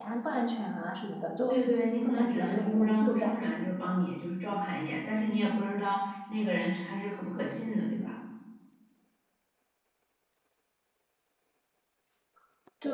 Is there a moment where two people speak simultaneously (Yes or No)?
Yes